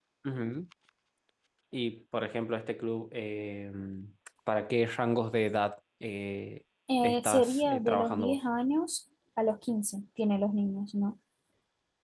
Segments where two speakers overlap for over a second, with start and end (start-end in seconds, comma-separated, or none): 7.0-8.4